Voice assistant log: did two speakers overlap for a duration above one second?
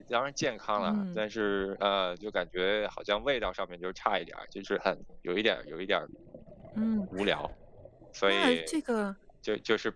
No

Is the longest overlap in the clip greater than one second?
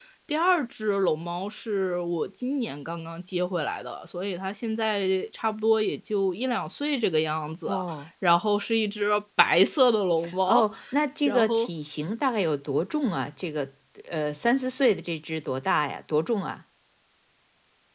No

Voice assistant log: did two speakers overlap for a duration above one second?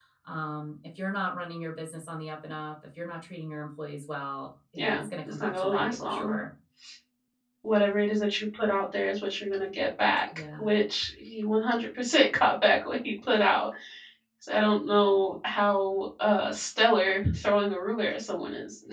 Yes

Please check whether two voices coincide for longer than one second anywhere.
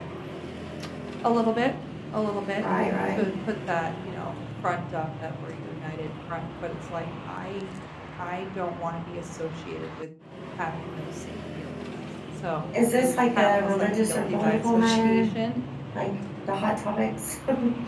Yes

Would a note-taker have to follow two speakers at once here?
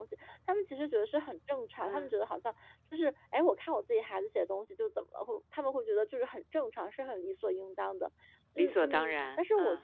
Yes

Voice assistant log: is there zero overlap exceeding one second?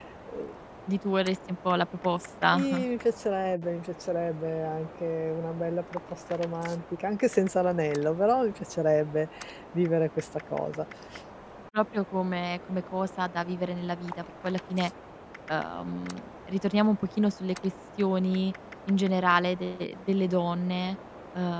Yes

